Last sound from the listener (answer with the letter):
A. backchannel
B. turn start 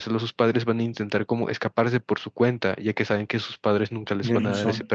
A